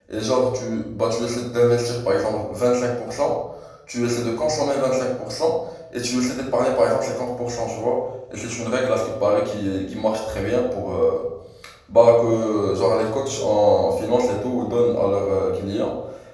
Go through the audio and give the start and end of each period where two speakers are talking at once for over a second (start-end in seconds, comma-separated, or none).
none